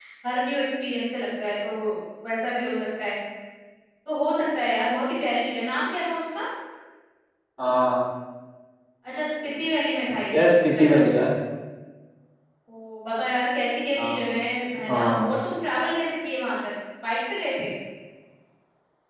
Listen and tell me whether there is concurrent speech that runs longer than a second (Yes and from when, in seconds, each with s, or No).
No